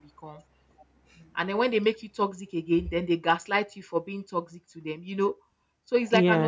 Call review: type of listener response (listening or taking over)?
listening